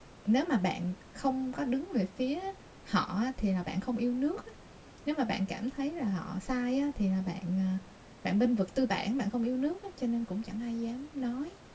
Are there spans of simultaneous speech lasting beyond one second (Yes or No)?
No